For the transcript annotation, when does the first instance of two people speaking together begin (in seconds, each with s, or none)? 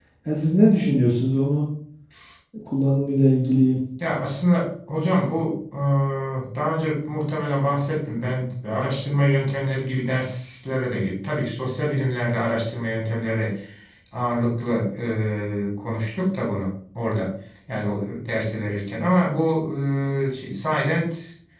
none